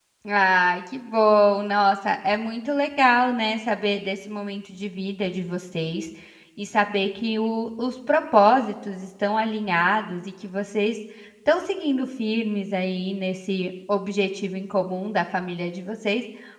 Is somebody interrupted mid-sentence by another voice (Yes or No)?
No